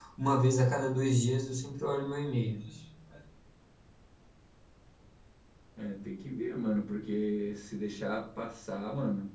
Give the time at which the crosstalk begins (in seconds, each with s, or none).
none